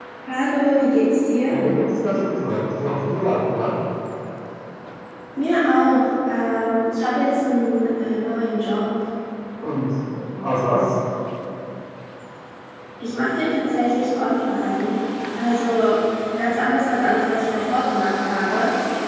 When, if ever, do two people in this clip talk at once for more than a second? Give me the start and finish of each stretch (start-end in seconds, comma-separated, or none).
none